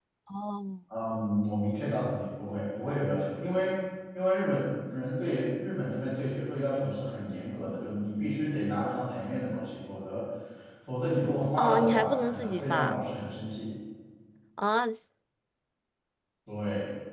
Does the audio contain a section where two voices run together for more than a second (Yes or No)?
Yes